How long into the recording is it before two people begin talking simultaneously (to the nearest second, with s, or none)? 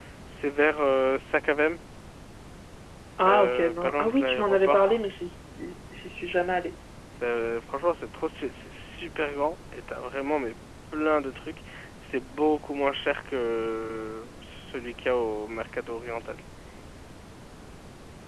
3 s